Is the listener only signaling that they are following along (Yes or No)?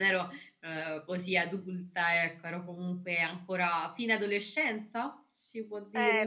No